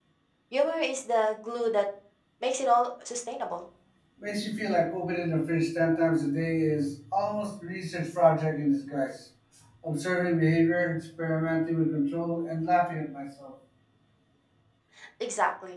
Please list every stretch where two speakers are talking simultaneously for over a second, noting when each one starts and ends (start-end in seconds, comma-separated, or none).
none